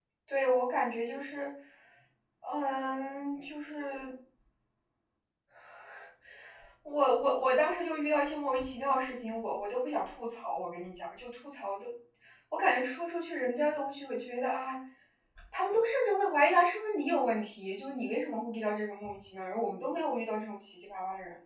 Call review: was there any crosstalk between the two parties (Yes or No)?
No